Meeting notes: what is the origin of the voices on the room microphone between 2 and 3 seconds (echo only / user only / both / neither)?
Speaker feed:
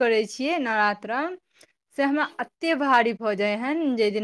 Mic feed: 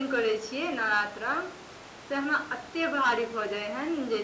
echo only